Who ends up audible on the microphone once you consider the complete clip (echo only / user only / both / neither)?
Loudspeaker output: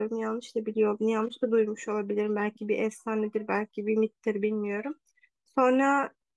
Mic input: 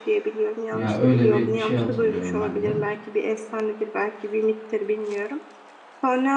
both